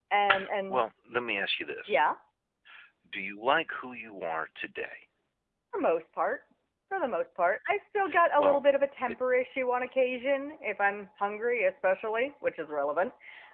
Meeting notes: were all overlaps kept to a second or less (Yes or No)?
Yes